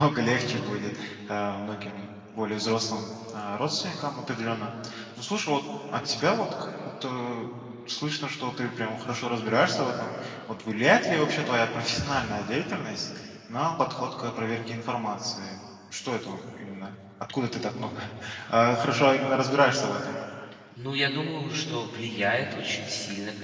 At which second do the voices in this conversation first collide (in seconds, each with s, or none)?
none